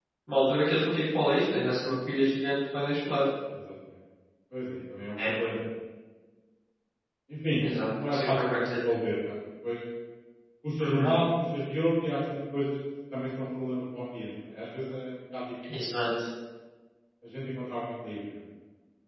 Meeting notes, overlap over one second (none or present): present